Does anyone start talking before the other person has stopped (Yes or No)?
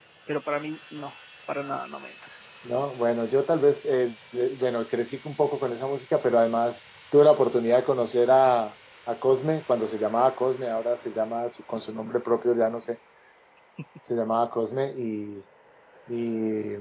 No